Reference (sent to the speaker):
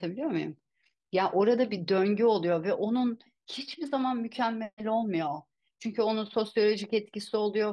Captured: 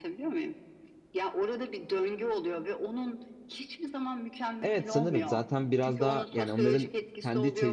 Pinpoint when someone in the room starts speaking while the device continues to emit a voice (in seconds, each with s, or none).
4.6 s